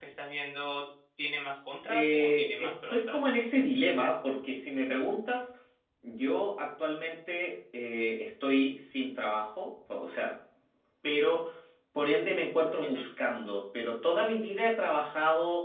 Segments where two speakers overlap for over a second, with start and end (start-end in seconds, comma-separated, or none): 1.9-3.3